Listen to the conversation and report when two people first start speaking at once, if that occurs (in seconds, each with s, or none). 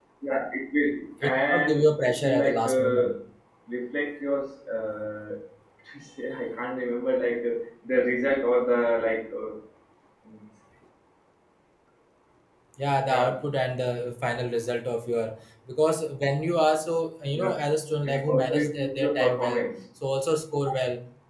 1.3 s